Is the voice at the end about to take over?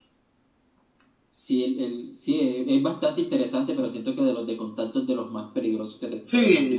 Yes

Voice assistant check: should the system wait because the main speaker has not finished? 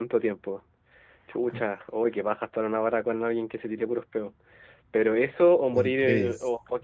Yes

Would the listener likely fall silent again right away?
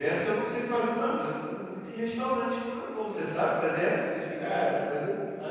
No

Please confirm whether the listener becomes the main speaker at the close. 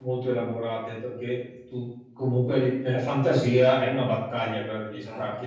No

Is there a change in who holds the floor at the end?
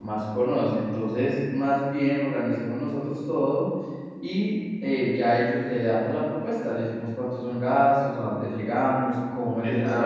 No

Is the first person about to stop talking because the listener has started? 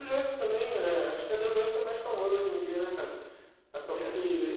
No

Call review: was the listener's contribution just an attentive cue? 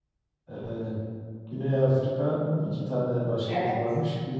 Yes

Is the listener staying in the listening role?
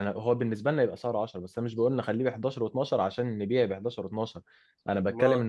Yes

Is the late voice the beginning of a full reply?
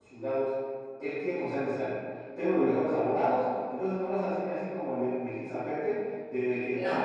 No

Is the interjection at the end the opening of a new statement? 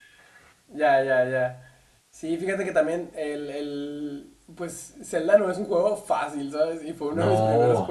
No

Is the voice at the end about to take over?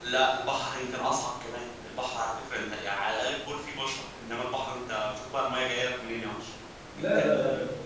Yes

